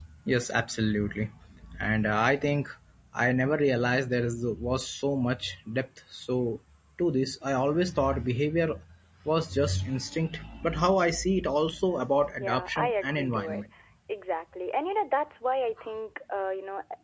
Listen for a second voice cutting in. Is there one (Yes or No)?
Yes